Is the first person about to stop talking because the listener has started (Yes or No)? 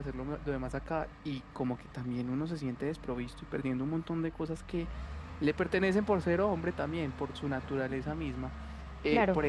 No